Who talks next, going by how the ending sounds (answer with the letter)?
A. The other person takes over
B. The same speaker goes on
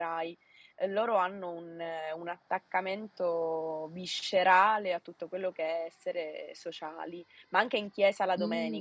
A